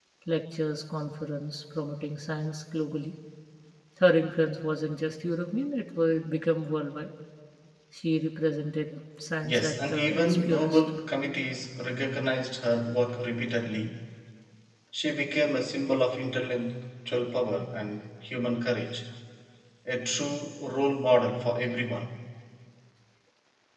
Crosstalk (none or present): present